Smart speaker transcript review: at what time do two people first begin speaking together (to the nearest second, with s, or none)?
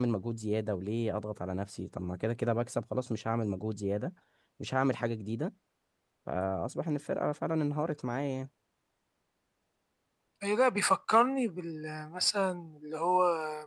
none